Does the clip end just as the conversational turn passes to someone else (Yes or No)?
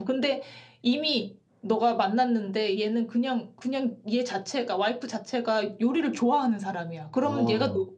No